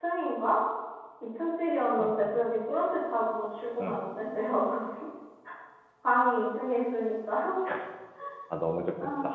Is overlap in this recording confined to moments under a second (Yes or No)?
Yes